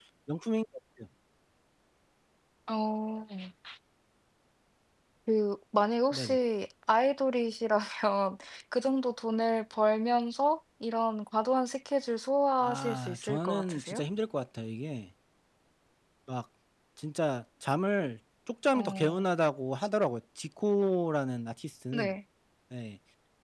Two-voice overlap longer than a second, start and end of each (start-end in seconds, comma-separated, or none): 12.6-14.0